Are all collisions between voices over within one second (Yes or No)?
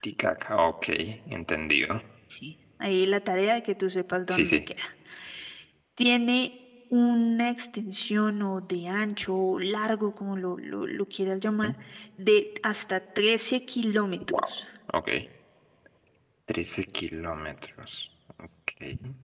Yes